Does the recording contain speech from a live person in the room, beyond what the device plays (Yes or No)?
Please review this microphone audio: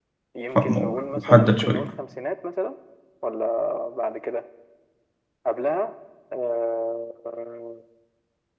Yes